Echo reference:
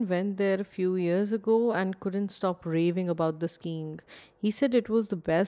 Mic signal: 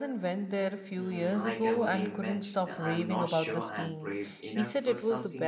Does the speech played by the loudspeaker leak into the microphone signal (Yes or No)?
Yes